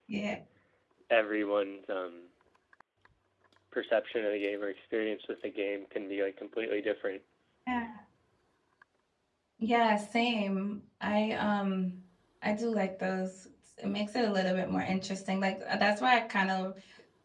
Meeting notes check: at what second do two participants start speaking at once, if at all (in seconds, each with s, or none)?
none